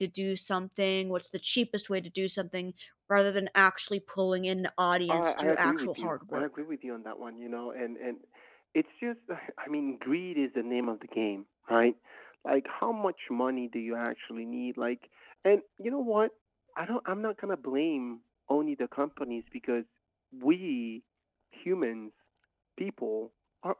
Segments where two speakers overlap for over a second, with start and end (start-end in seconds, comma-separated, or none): 5.1-6.5